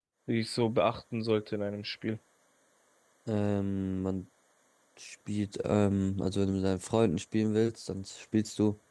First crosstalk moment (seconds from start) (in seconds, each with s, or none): none